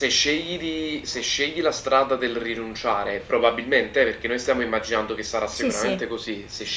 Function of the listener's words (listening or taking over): listening